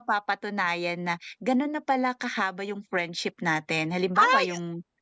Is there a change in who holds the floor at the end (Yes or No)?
No